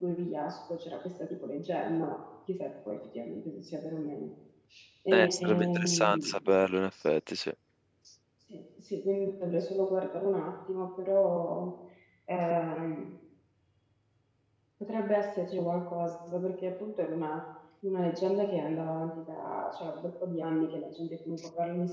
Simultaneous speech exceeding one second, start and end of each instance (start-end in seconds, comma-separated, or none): 5.1-6.5